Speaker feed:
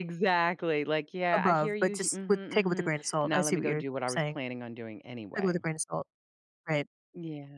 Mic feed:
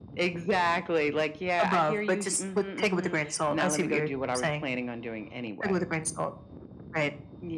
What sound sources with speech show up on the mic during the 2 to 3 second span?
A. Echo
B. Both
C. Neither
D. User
A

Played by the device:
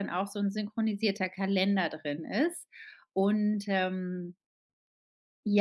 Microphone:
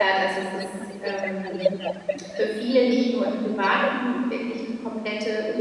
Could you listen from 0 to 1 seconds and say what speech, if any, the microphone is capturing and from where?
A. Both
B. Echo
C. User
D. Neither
A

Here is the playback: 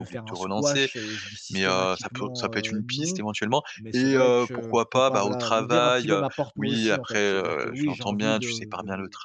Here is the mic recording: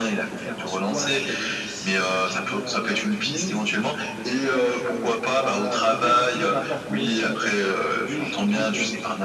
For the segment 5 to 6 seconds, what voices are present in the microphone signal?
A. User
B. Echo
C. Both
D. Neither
B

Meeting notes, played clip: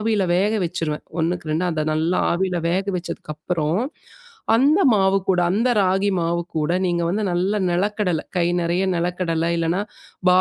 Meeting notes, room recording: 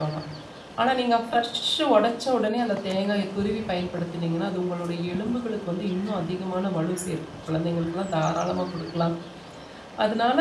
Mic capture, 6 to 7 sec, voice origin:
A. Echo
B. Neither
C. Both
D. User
D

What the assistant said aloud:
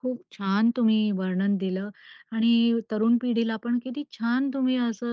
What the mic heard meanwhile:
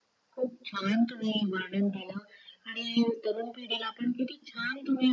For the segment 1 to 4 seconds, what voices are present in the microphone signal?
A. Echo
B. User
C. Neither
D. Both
A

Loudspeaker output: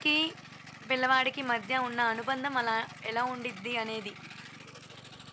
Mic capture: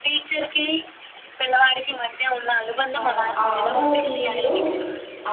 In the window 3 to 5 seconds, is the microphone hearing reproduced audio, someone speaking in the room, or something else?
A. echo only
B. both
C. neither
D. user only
B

